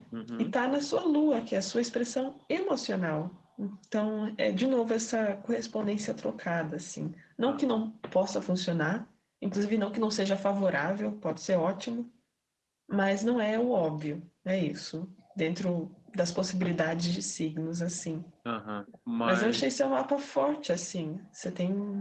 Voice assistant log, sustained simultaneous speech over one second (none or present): none